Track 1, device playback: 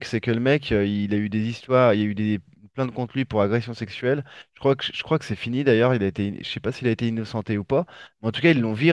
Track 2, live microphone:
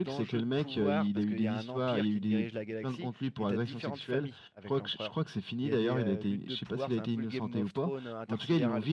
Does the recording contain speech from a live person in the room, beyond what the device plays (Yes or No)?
Yes